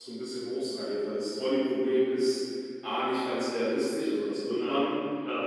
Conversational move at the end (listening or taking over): listening